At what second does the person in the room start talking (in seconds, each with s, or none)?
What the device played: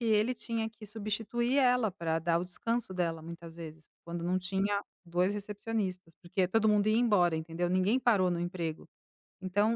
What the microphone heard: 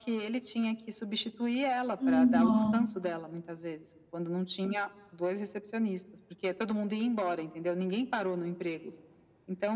2.0 s